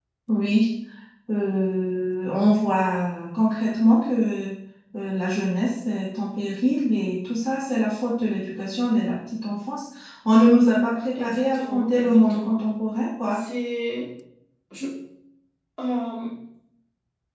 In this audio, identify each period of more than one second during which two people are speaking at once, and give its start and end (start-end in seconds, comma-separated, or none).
11.2-12.6